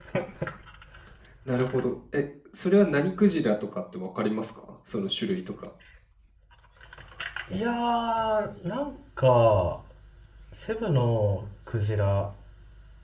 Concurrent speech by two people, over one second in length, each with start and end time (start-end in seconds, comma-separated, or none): none